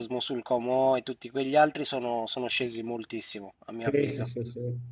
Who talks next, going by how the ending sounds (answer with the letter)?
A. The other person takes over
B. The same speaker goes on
A